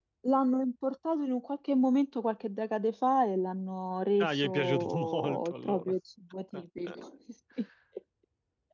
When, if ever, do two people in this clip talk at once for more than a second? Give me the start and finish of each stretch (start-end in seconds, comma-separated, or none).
4.2-5.9